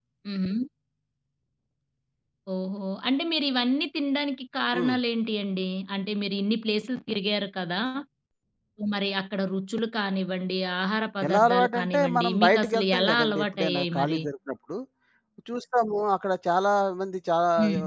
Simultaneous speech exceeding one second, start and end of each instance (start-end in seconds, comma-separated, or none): 11.3-14.2